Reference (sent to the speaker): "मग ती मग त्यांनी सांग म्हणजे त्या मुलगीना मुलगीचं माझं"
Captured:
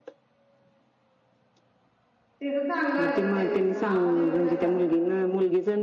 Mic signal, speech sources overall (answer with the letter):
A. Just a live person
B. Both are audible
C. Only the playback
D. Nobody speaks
B